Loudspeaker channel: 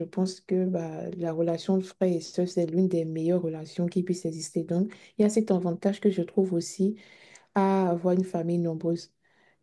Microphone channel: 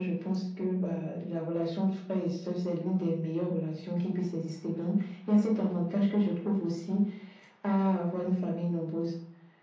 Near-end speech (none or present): none